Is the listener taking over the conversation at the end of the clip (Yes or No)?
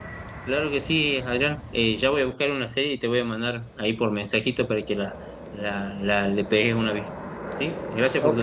Yes